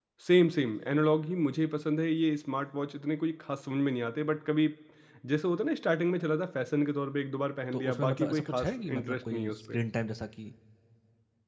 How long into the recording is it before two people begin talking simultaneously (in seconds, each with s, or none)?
7.7 s